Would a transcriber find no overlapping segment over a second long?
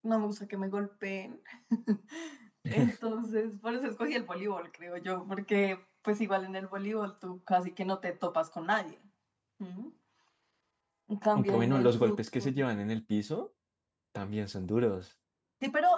No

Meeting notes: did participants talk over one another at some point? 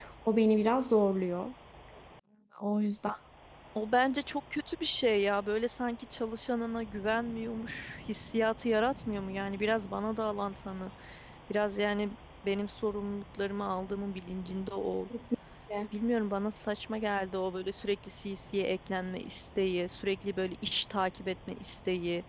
No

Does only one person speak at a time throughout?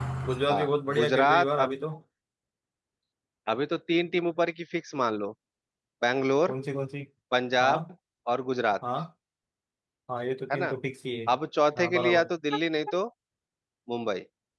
No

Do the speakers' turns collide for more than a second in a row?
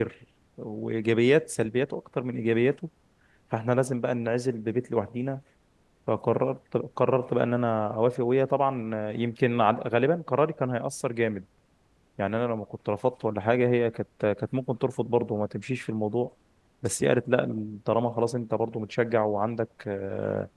No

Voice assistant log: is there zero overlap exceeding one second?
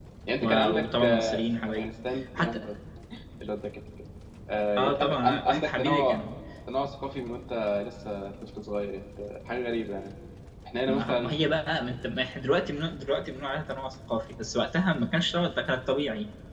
No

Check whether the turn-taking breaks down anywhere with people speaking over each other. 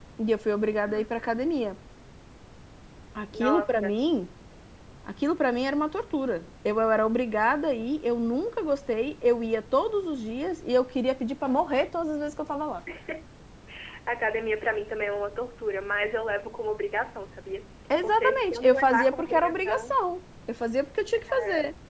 Yes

